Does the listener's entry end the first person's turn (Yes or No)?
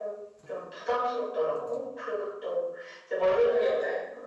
No